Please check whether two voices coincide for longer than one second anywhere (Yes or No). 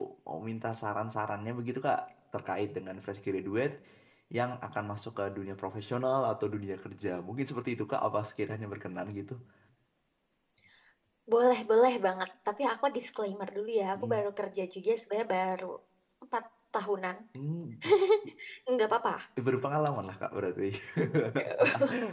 No